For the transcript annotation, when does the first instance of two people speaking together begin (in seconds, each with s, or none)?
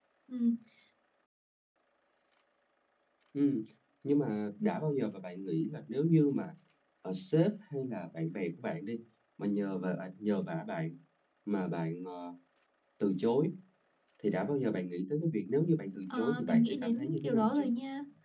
16.1 s